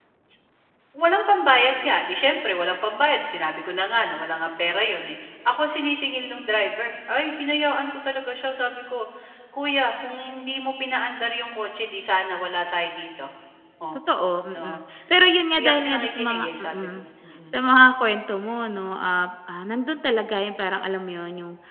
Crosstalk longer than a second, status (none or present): present